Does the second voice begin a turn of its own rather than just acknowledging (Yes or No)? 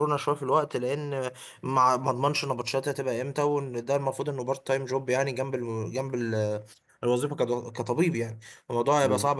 No